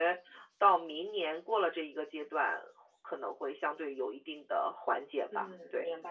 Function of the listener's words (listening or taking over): taking over